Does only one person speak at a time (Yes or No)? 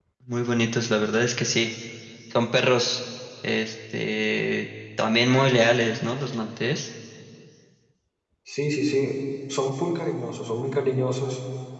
Yes